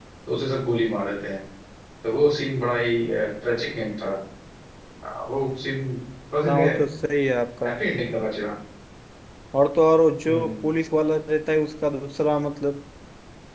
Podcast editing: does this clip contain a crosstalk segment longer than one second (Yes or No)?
No